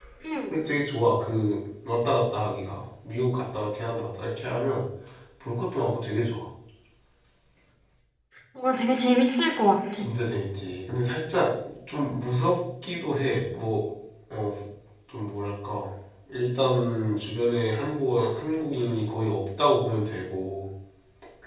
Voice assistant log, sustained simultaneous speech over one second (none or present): none